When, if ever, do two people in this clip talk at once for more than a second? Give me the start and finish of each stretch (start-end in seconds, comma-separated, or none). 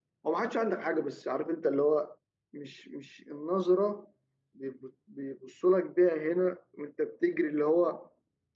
none